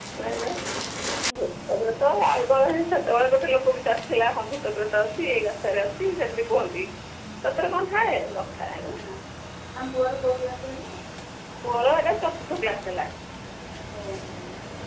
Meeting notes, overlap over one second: none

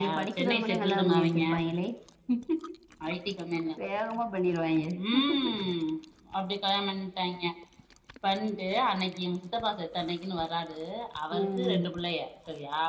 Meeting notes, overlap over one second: present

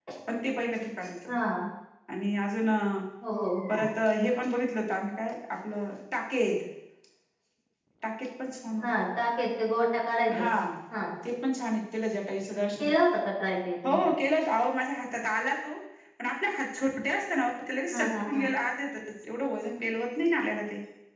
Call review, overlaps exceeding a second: none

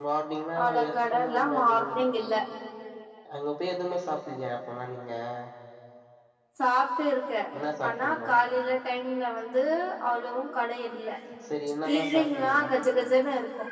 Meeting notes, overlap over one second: present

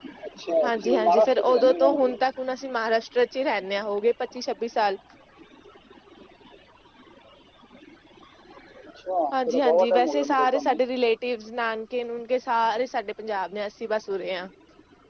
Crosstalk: present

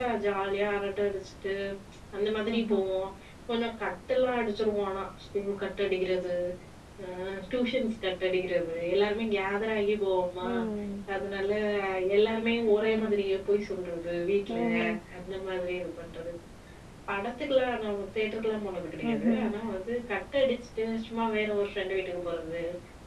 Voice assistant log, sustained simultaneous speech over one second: none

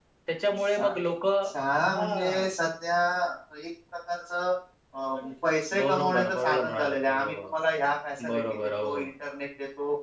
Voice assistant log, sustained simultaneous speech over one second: present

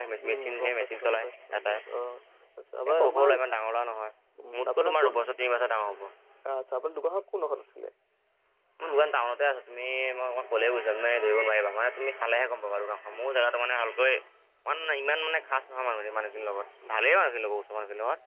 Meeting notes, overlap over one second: present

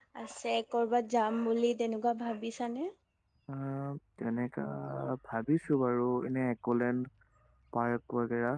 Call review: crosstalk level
none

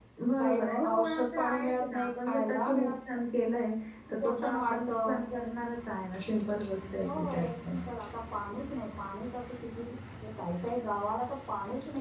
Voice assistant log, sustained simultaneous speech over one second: present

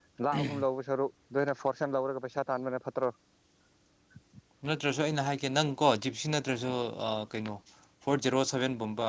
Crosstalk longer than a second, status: none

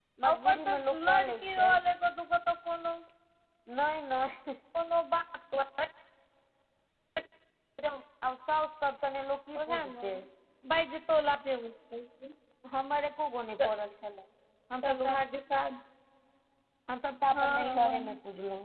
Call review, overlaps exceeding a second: present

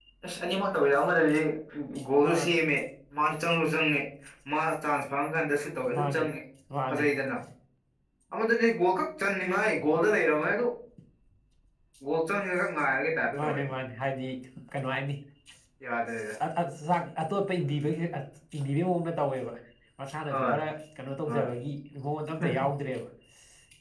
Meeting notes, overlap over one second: none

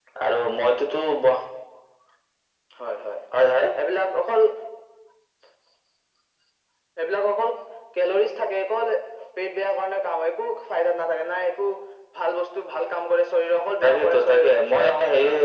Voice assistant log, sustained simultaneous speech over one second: present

